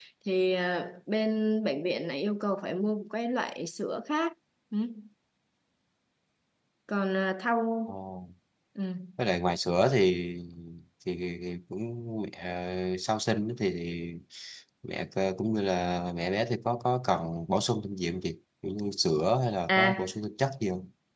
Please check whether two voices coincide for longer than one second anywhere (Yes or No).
No